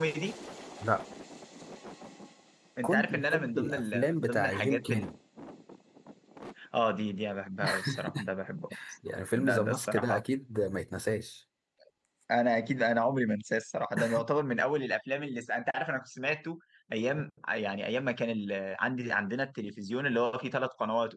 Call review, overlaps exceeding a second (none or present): present